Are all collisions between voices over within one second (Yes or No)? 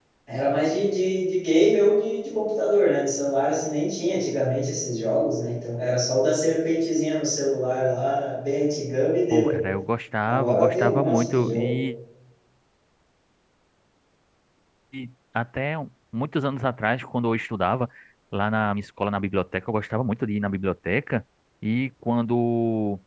No